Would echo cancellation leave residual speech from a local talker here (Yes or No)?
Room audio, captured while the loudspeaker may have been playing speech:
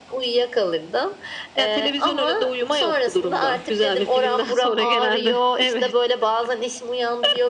No